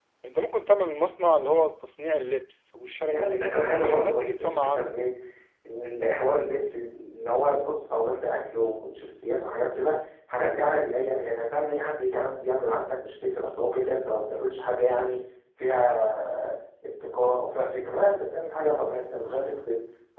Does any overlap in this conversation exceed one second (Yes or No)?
Yes